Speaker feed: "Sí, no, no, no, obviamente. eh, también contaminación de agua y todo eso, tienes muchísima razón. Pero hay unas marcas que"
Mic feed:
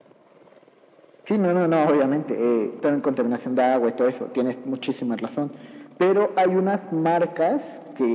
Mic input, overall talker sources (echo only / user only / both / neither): echo only